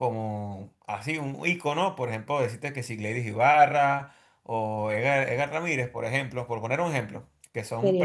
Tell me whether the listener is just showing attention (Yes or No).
Yes